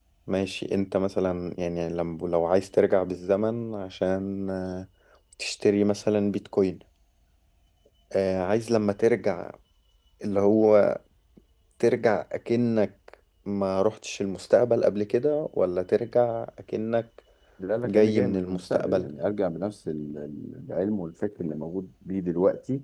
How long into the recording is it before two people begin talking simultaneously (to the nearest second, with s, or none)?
18 s